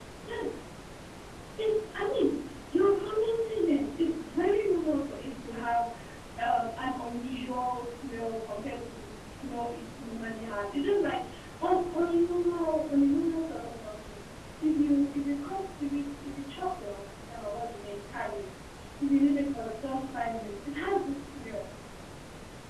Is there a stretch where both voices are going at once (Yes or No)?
No